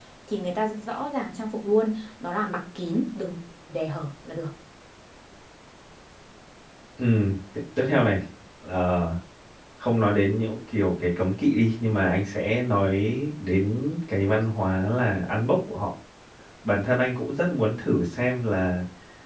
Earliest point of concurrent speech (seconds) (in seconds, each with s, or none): none